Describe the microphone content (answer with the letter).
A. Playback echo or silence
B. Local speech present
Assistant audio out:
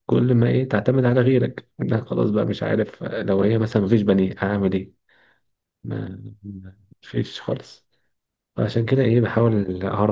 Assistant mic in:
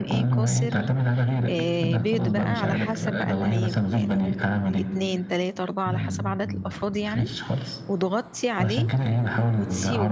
B